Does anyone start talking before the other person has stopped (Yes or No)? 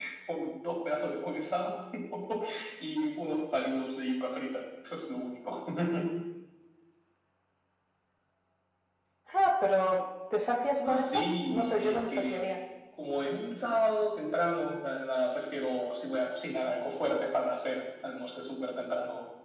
Yes